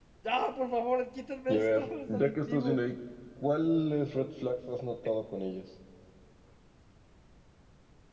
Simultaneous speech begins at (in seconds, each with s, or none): 1.5 s